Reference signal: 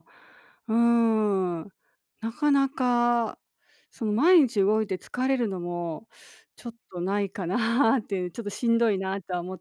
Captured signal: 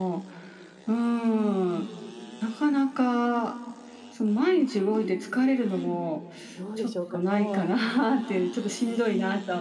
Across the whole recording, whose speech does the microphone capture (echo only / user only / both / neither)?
both